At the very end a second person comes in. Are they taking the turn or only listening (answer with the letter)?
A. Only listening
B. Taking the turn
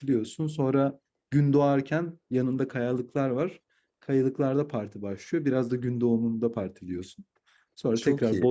A